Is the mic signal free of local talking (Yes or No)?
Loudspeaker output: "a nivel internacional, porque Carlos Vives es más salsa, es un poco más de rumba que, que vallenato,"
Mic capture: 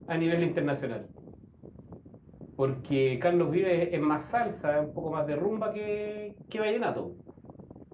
Yes